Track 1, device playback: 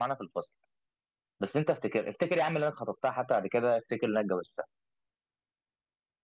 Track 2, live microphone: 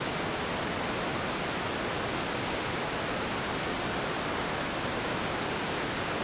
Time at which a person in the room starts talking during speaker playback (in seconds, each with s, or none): none